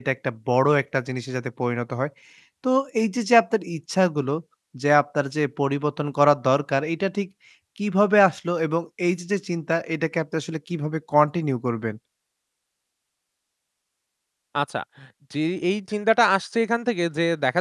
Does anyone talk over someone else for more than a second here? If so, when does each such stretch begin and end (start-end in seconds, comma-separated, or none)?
none